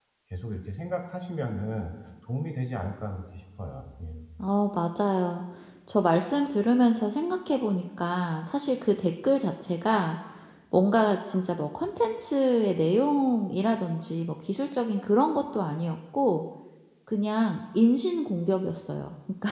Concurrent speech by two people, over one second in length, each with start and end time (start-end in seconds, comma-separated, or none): none